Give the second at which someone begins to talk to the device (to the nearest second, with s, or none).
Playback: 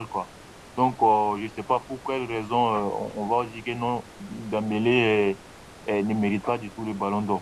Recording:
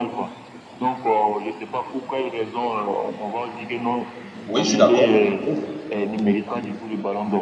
4 s